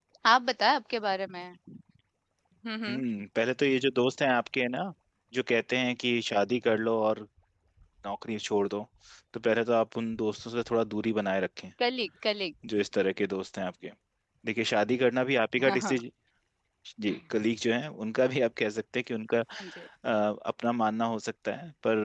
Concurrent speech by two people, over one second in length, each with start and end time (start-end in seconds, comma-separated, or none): none